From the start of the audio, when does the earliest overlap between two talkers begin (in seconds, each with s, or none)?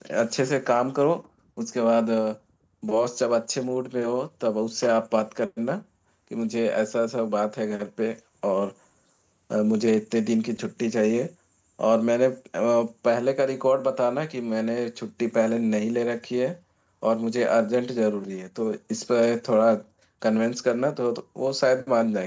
none